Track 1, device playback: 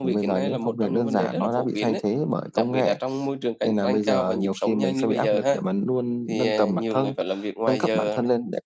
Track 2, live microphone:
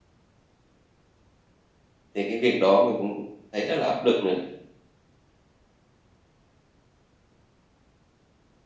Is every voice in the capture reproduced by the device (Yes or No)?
No